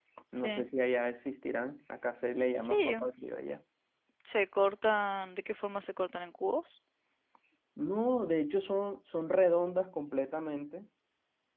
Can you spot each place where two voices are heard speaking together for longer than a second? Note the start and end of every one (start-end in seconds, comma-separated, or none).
none